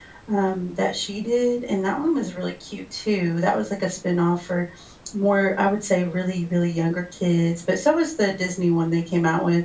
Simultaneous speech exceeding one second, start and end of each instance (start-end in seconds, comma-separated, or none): none